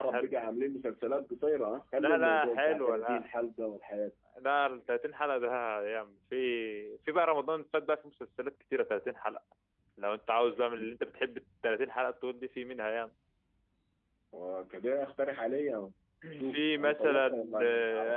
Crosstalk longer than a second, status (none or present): present